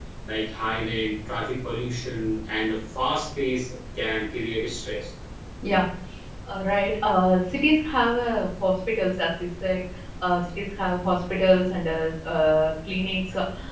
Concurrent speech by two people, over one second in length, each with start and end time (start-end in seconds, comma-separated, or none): none